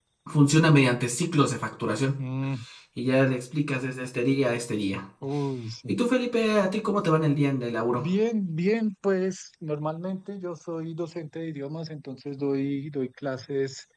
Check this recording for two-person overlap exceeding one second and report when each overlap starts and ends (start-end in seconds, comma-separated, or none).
none